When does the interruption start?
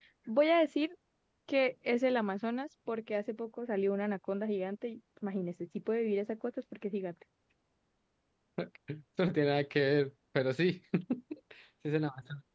none

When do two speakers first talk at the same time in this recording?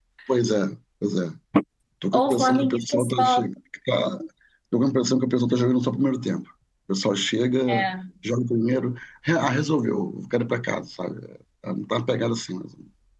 2 s

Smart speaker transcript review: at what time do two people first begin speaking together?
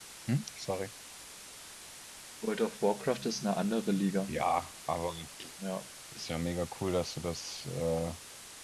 none

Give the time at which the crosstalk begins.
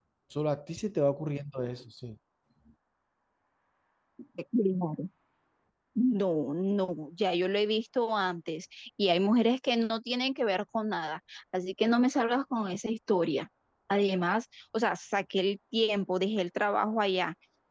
none

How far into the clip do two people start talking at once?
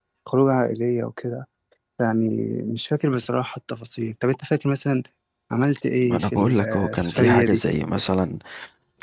6 s

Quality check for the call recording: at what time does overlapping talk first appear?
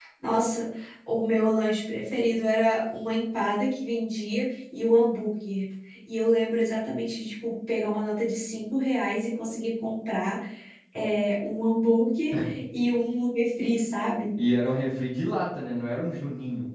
none

